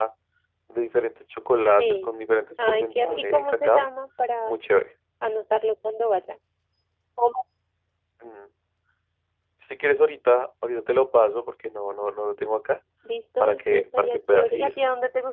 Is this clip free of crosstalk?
No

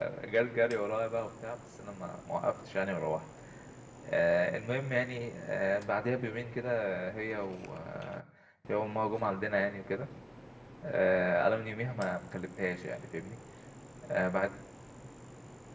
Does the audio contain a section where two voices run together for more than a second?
No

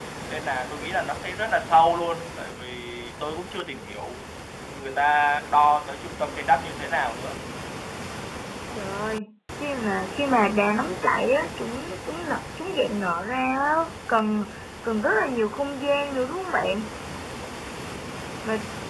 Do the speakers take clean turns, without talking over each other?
Yes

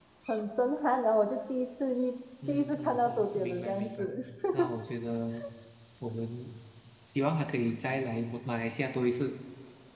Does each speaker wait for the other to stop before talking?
No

